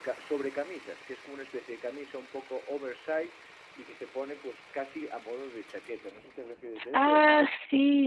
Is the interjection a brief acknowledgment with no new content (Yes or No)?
No